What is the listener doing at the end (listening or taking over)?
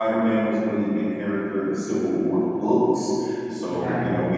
listening